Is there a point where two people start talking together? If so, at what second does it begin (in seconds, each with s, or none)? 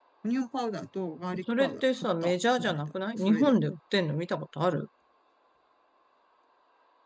1.6 s